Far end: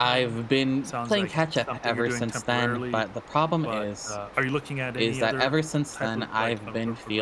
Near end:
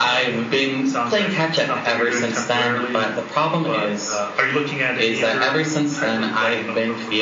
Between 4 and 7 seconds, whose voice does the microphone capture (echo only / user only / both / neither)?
echo only